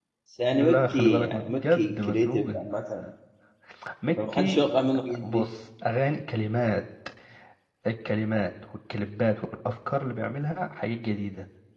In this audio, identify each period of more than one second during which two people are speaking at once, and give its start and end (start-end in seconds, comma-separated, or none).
0.5-2.6